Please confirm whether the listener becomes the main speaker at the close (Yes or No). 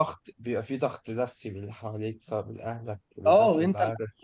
Yes